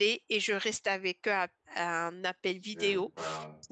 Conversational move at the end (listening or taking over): listening